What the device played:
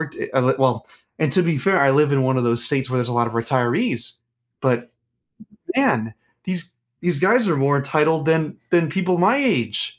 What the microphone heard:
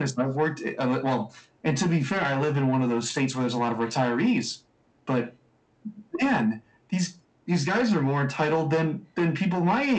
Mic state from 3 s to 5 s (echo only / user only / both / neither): echo only